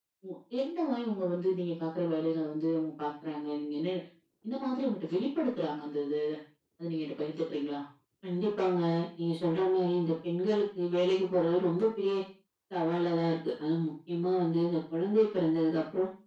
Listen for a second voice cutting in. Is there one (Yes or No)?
No